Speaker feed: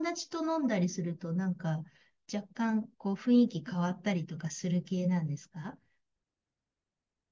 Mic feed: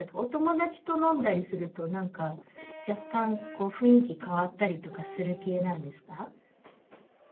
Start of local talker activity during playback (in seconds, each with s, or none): none